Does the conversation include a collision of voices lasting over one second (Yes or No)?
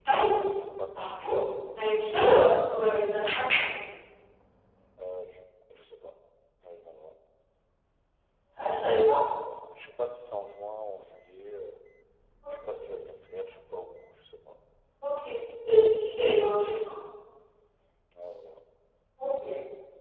No